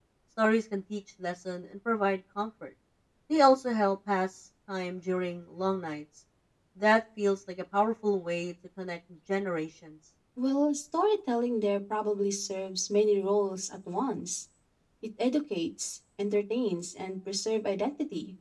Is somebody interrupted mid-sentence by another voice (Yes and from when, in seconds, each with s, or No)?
No